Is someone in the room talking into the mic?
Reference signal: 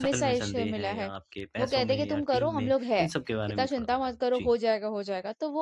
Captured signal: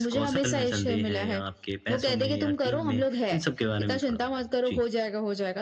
No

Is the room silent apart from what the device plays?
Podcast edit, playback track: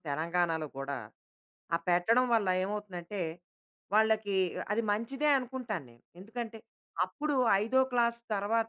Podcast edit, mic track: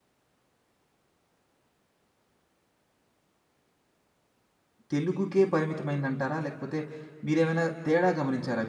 No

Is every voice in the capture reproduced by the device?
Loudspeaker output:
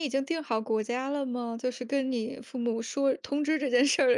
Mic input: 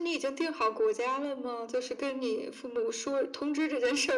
Yes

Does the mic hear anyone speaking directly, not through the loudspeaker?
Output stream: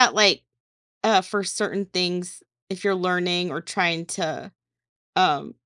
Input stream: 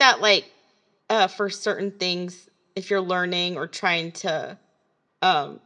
No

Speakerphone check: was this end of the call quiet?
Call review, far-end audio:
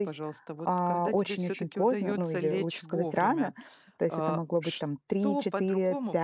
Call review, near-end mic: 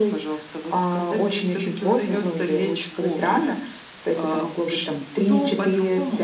Yes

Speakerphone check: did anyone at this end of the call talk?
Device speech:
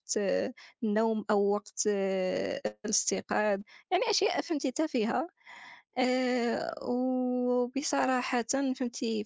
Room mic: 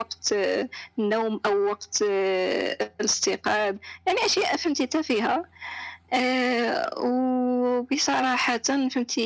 No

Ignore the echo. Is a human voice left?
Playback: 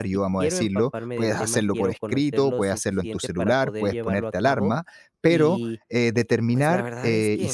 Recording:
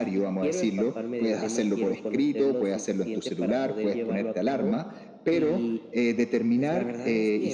No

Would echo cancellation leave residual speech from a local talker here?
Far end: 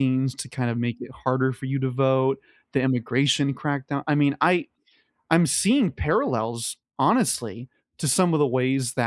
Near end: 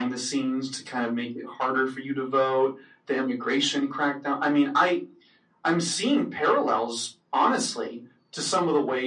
No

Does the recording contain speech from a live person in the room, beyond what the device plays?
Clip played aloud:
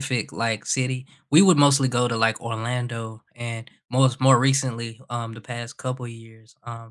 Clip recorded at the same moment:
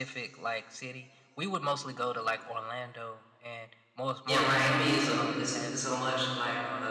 Yes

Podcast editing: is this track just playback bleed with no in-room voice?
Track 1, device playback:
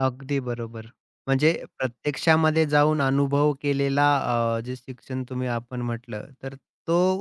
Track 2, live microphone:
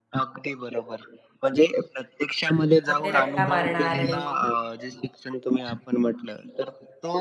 No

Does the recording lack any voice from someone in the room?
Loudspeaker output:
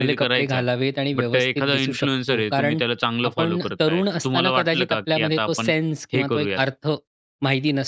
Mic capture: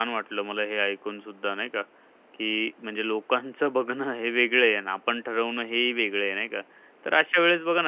No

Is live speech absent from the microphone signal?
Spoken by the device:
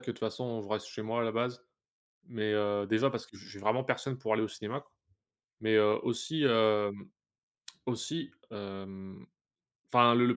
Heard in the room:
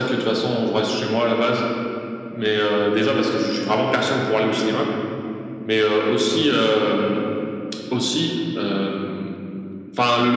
Yes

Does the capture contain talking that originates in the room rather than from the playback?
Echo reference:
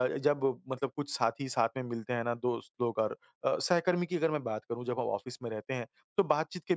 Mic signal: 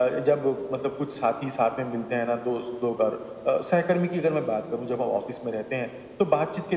No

